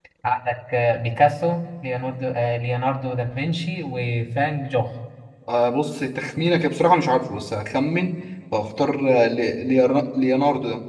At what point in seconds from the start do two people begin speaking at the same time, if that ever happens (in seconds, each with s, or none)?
none